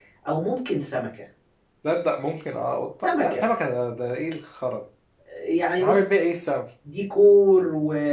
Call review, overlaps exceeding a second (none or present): none